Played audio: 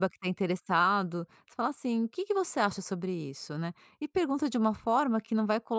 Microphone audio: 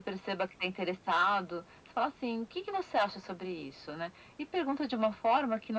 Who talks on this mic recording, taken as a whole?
echo only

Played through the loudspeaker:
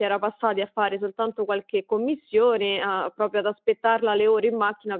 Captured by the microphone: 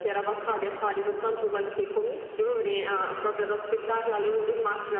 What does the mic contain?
echo only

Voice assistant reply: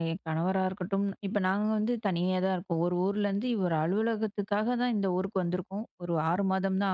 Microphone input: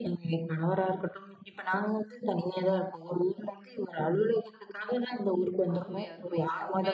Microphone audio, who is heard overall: both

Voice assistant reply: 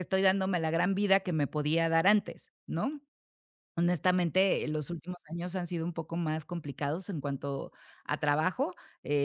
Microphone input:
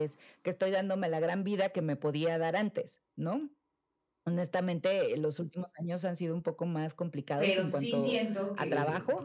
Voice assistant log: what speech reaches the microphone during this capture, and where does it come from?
both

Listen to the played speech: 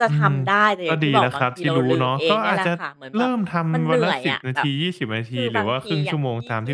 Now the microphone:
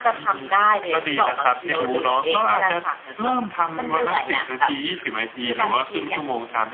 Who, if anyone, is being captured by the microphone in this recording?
echo only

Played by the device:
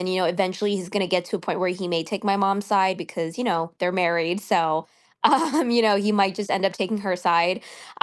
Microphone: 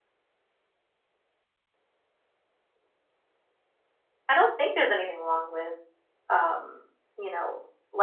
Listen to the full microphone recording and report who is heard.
user only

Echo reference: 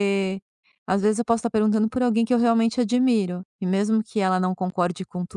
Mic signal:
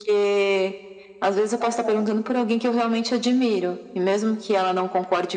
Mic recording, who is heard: both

